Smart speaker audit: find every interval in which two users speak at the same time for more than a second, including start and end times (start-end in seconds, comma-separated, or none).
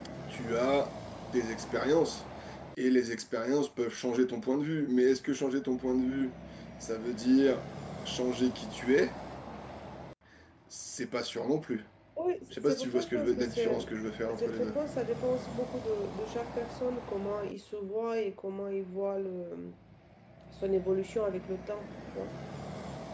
12.5-13.8